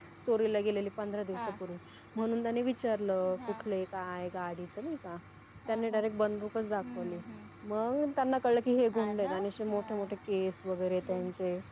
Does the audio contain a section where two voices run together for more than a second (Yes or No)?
No